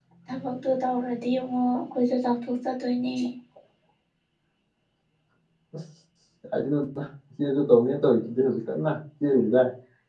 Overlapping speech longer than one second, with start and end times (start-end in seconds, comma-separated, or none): none